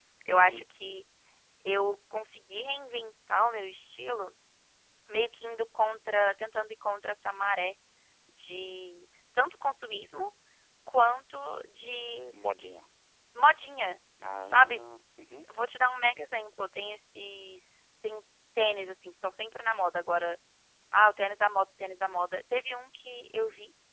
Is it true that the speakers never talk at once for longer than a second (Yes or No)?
Yes